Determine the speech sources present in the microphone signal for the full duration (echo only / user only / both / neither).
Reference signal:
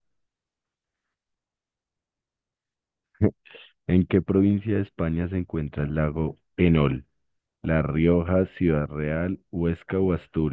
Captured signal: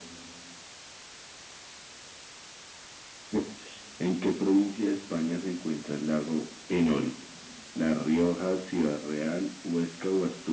echo only